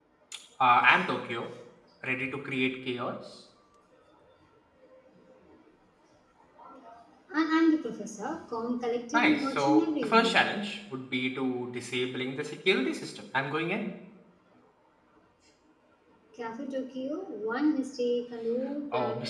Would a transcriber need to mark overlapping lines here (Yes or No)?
Yes